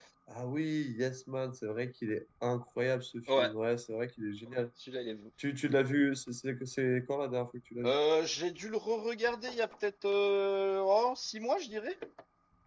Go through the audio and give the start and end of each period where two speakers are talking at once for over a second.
none

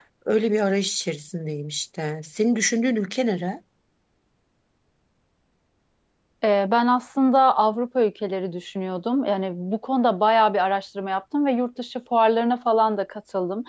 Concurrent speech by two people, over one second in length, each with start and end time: none

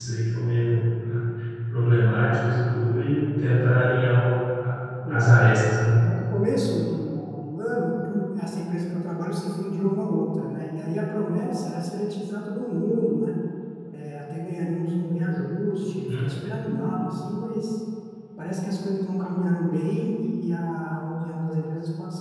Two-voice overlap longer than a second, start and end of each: none

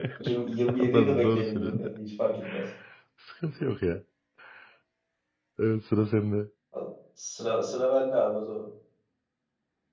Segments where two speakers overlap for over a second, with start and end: 0.7-1.9

